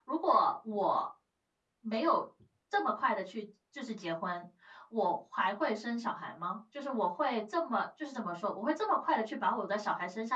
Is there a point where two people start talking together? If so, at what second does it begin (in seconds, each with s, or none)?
none